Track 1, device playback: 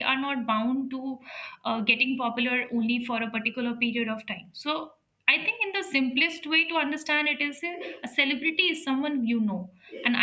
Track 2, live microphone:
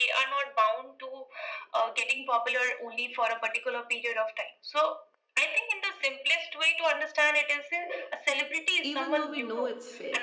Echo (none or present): present